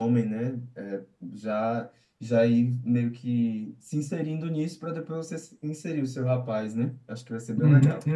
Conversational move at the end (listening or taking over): taking over